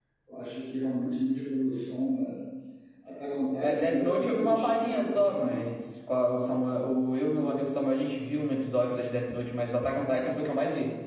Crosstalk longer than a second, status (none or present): present